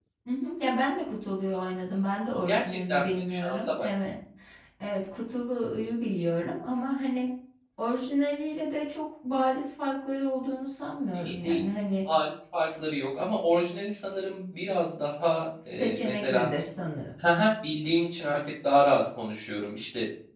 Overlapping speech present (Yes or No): Yes